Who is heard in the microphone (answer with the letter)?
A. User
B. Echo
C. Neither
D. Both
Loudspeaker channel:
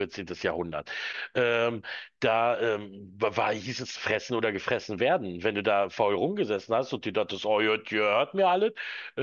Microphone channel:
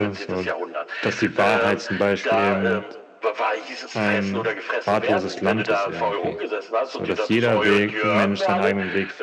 D